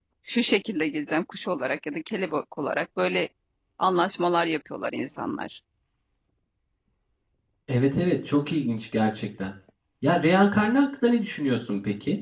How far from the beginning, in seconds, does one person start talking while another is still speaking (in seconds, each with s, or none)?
none